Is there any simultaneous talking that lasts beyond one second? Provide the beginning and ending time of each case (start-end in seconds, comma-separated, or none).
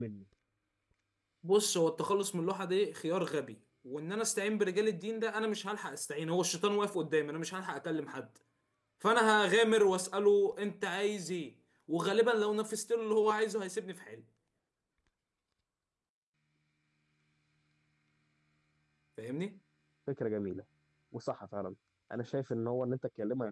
none